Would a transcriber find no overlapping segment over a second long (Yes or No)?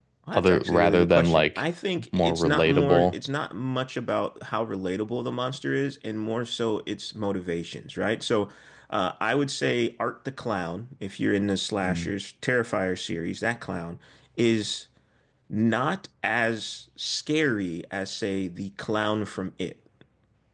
No